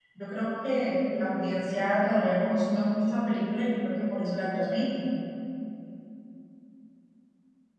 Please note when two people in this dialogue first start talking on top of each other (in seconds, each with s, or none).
none